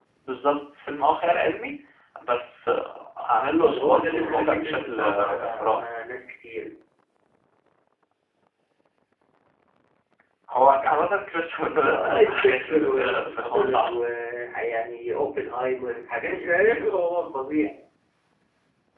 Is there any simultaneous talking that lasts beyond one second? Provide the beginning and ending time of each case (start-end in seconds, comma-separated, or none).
3.7-5.9, 11.8-13.9